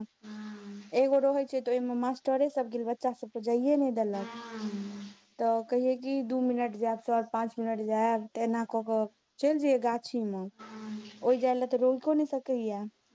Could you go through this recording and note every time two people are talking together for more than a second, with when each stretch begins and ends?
none

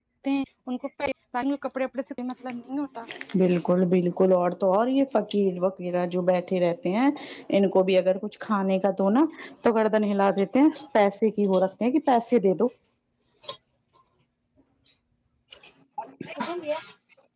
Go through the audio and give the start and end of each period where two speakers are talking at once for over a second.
none

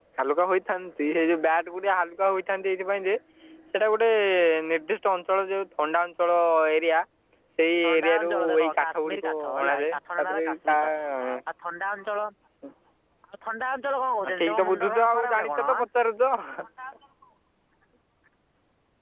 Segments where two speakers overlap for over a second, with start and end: 7.8-10.8, 14.4-15.7

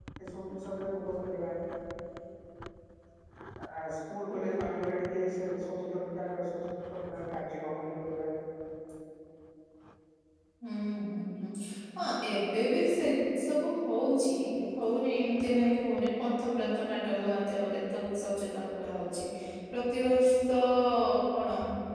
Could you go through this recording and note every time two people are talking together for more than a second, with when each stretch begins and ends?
none

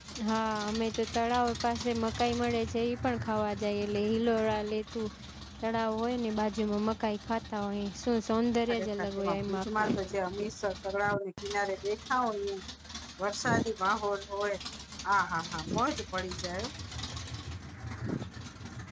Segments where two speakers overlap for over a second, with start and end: 8.7-10.0

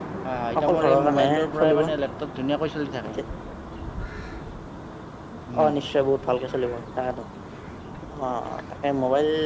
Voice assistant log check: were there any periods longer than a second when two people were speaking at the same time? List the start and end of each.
0.6-1.8

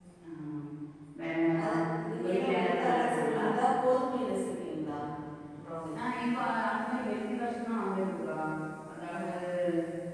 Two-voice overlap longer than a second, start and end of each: 2.1-3.4

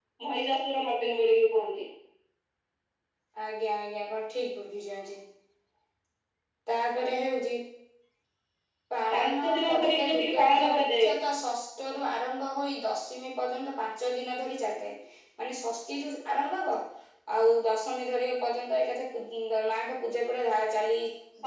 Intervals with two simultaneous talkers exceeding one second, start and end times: 9.1-11.1

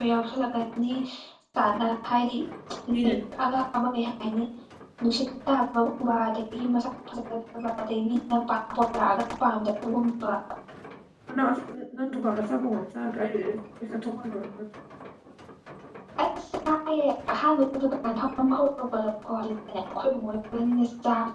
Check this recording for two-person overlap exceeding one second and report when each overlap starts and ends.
none

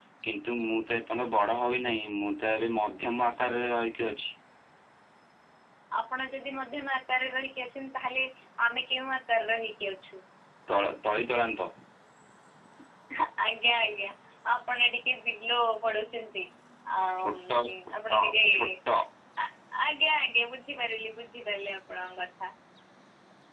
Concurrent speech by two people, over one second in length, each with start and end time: none

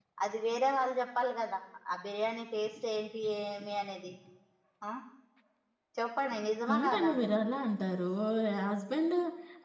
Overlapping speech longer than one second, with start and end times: none

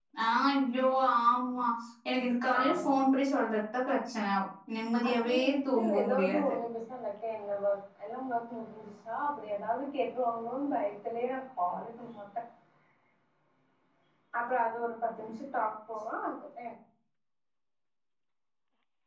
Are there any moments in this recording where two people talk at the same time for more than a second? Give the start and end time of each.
5.1-6.5

